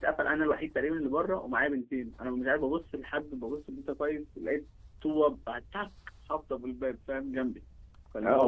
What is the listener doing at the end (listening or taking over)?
taking over